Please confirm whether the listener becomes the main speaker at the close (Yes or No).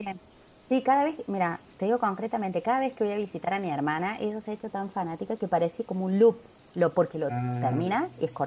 No